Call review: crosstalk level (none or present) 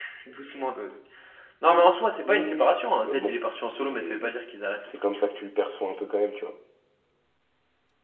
present